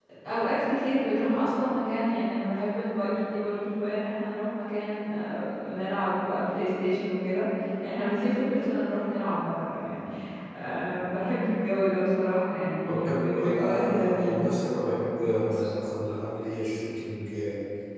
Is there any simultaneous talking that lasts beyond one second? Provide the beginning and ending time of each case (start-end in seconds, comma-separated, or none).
12.8-14.4